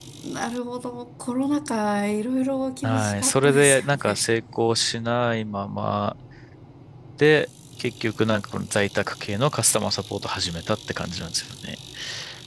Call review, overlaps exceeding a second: present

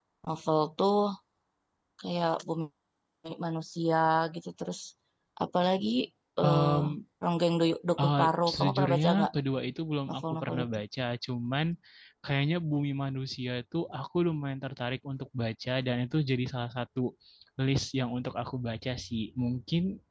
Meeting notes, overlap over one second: present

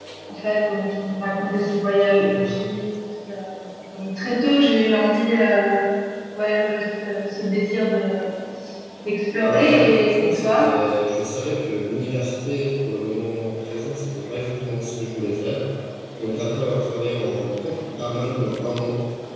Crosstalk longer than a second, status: present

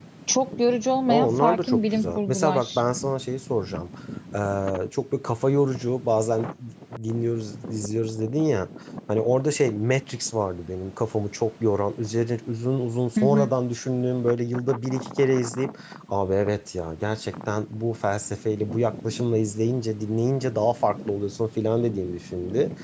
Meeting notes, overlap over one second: present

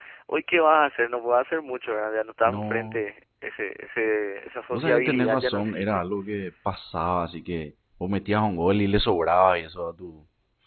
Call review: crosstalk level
present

